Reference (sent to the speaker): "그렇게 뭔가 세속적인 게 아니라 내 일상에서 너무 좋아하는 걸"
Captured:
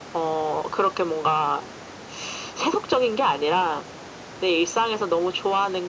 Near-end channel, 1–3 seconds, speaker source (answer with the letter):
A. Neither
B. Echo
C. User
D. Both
B